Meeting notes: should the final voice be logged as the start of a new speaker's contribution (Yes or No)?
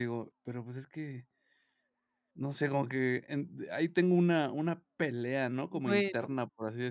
No